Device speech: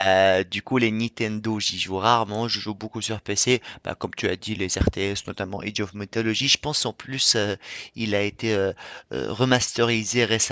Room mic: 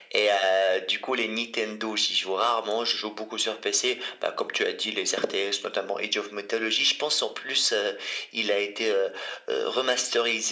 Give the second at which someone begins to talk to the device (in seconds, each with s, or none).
none